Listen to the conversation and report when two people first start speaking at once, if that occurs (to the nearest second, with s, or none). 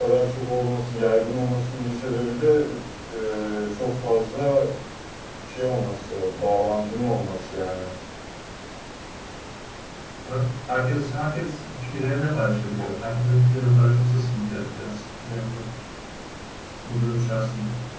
none